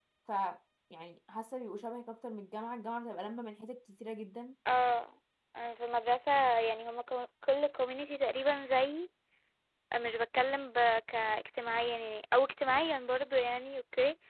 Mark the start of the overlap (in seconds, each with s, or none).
none